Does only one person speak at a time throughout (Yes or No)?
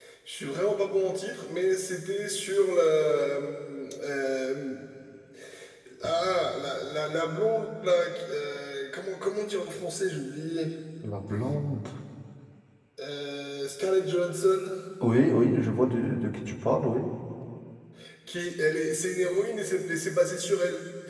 Yes